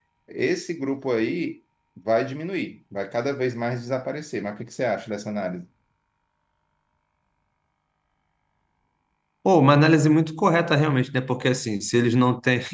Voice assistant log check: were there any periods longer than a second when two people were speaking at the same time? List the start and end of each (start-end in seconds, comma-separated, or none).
none